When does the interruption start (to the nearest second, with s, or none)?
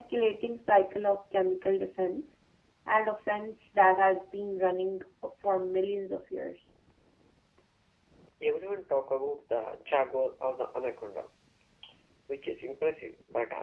none